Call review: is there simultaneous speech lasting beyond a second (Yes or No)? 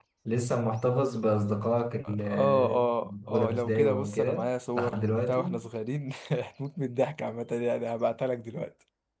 Yes